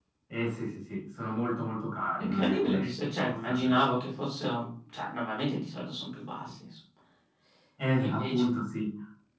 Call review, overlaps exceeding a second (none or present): present